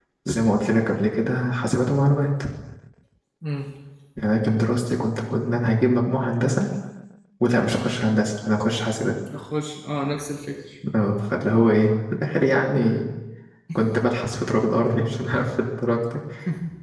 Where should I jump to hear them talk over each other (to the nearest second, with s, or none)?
none